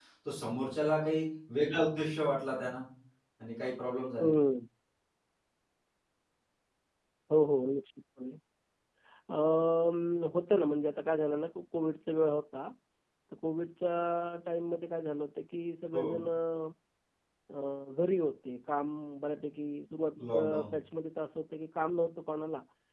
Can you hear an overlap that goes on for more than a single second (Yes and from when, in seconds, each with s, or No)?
No